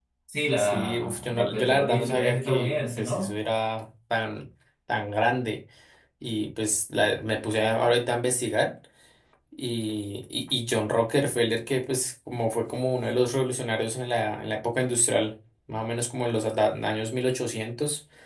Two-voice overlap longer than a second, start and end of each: 0.6-3.3

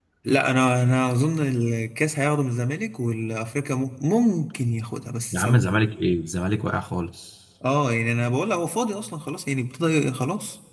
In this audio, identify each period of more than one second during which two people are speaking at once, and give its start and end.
none

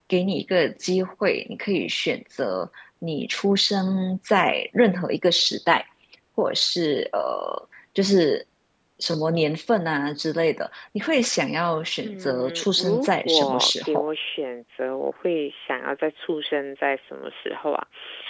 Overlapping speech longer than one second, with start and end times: 12.0-14.1

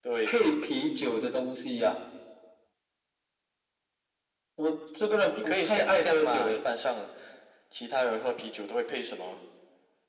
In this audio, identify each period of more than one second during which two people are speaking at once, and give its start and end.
5.3-6.6

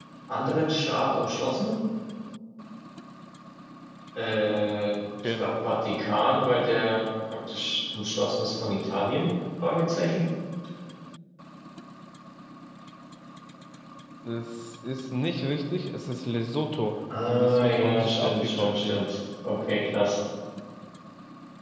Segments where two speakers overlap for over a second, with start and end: 17.3-19.0

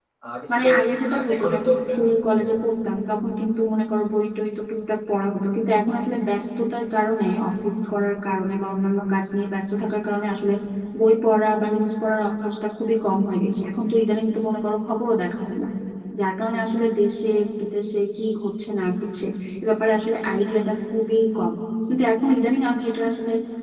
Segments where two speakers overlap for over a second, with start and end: 0.5-1.9

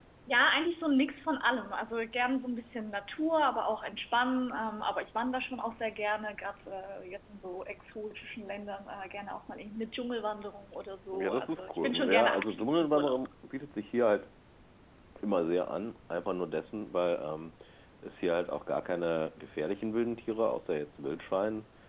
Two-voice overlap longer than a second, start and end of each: 11.1-13.2

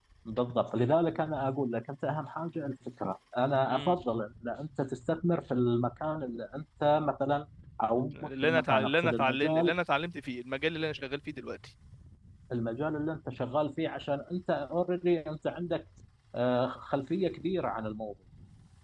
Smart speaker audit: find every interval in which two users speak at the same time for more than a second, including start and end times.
8.1-9.7

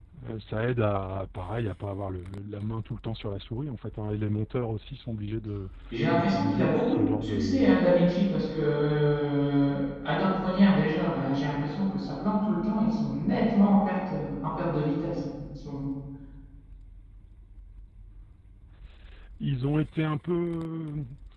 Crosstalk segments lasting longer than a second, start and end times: 6.1-7.6

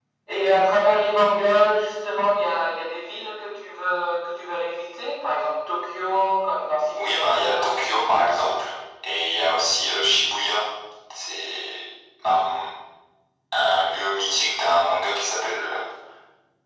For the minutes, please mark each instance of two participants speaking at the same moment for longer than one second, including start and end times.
7.0-8.6

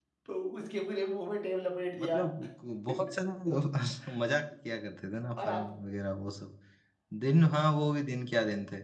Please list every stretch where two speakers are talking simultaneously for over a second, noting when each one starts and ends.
none

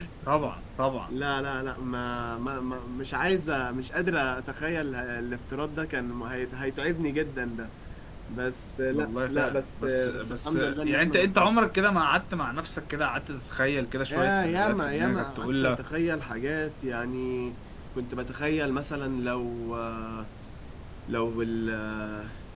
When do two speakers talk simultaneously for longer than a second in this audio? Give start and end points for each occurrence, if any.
8.9-11.5, 14.1-15.8

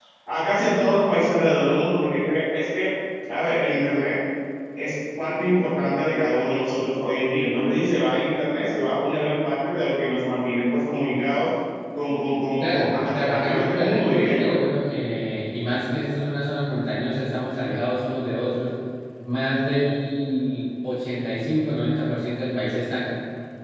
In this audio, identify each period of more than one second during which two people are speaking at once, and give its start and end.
12.6-14.5

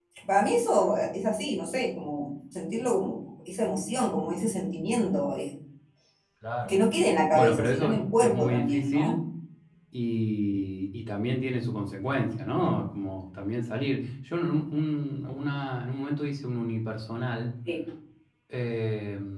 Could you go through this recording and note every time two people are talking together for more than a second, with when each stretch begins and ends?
7.3-9.2

